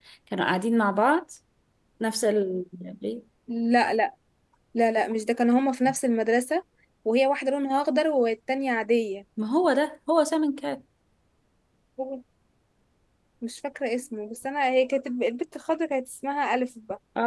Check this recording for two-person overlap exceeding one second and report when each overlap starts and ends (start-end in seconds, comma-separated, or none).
none